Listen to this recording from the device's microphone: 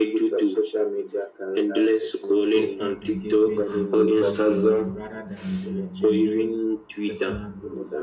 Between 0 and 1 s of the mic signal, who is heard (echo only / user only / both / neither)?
echo only